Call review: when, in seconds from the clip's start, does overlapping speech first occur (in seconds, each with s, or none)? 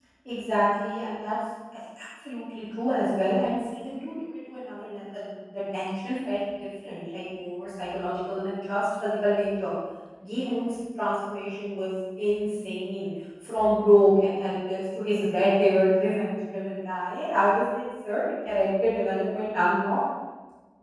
none